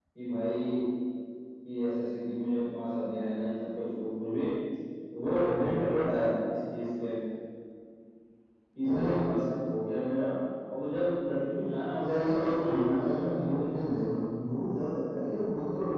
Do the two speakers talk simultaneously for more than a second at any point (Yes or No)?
Yes